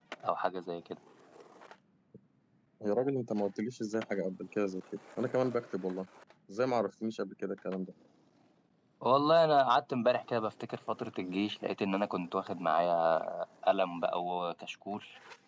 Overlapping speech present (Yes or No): No